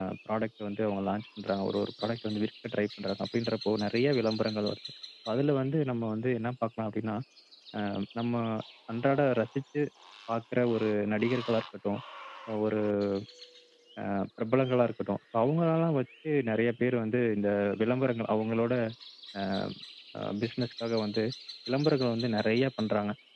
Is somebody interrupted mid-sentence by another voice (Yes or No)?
No